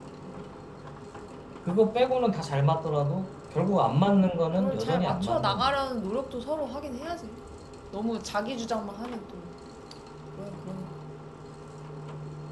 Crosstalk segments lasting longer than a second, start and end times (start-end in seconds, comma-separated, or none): 4.5-5.8